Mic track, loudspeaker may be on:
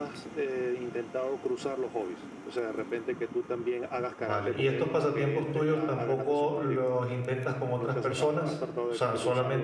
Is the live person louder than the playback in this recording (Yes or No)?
Yes